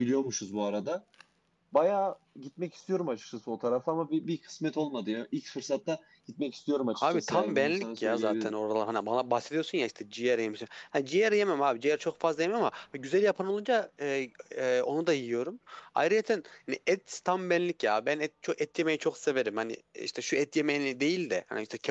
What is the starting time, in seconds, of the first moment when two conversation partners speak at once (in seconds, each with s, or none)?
6.9 s